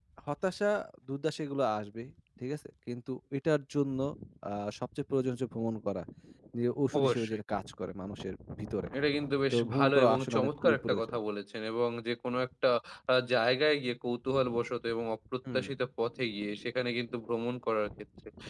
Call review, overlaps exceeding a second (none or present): present